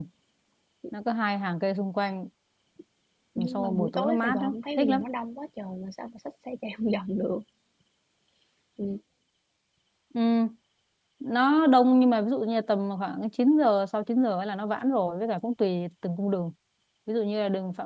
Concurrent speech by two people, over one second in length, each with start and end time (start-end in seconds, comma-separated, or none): 3.5-5.1